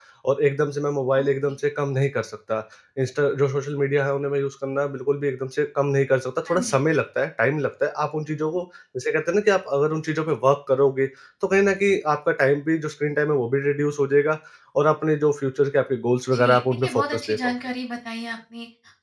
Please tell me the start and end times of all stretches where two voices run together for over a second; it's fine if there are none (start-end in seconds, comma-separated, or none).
16.3-17.5